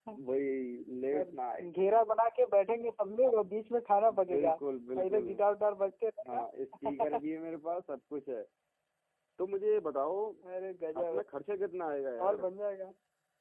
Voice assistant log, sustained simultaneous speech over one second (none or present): none